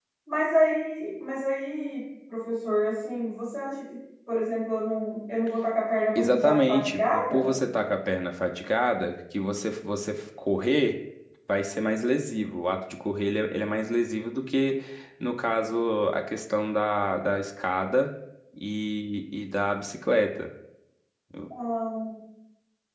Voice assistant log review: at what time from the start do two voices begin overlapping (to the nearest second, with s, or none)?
6 s